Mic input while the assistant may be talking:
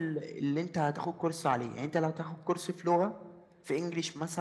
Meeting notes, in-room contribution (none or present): none